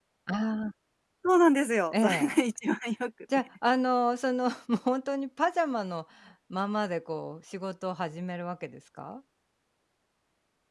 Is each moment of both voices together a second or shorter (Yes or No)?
Yes